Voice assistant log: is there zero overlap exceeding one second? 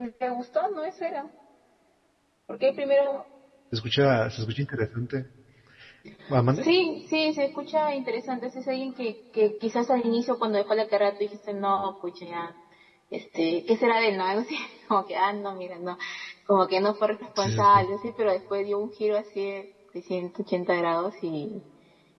Yes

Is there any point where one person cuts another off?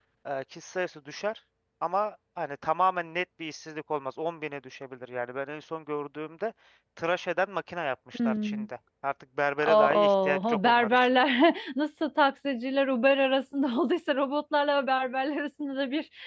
Yes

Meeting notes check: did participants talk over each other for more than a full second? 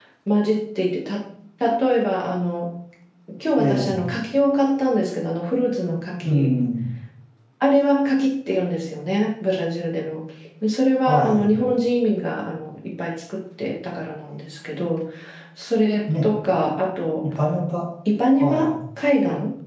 No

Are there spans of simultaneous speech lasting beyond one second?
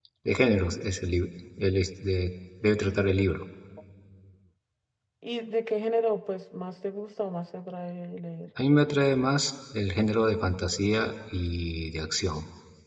No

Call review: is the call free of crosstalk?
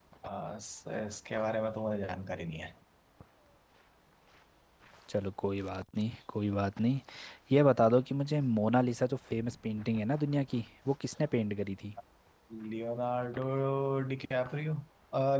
Yes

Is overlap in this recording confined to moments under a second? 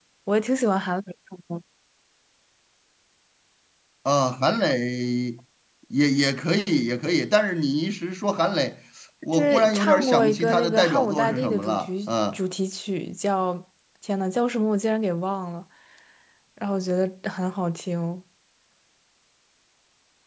No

